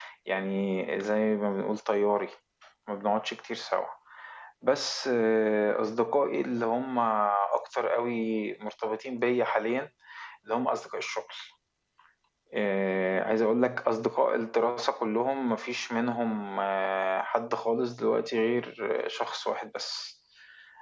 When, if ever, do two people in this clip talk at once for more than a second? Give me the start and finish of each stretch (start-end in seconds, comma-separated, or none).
none